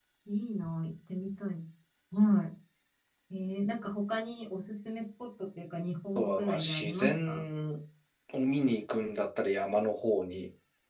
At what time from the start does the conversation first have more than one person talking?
6.2 s

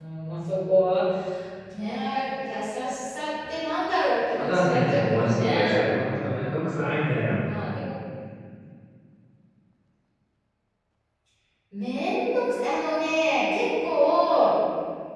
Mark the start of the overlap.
4.4 s

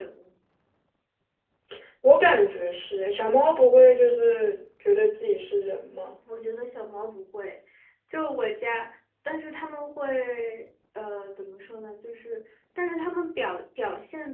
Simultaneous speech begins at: none

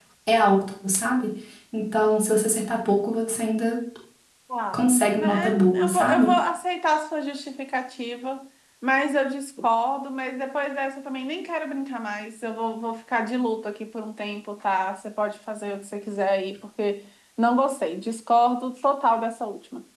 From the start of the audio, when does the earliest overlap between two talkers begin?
4.7 s

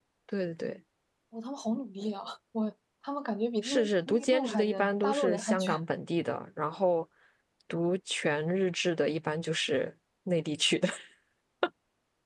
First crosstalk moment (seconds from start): 3.6 s

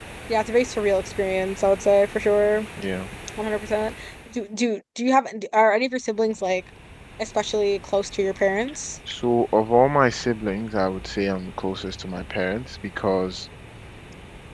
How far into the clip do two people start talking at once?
none

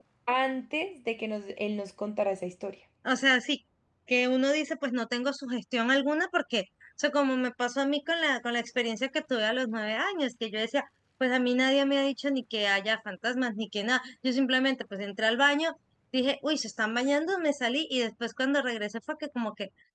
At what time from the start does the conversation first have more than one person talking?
none

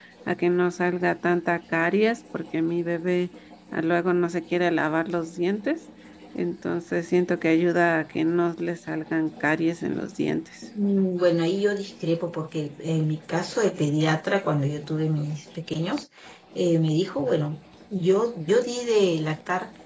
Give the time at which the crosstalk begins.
none

